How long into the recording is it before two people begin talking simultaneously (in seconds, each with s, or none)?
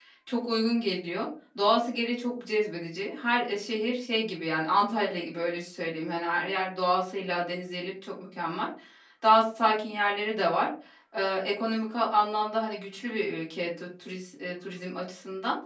none